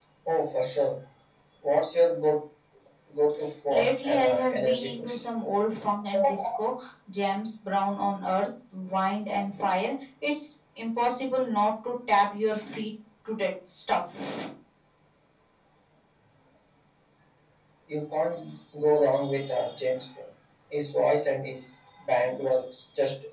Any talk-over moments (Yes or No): Yes